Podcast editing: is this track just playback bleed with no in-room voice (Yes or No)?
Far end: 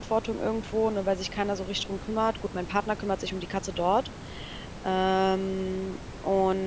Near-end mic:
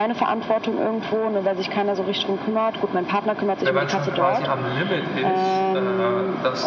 No